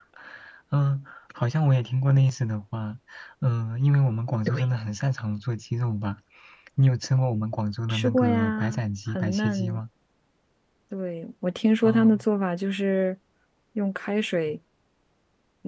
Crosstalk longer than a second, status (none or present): present